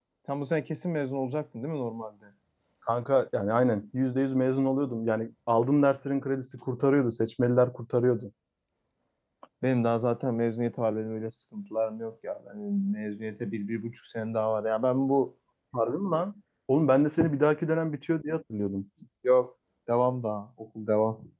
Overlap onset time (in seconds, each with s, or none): none